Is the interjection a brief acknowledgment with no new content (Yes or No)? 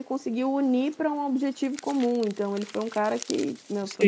No